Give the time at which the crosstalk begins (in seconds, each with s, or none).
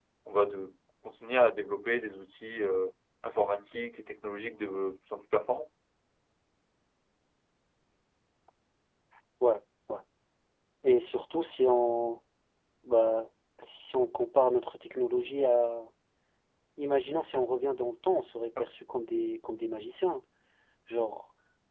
none